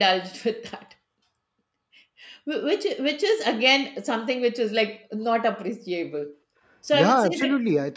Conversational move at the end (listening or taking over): taking over